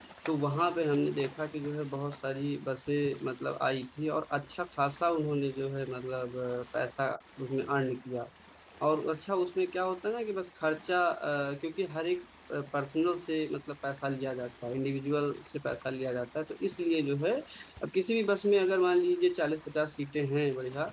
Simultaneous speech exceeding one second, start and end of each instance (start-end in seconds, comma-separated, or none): none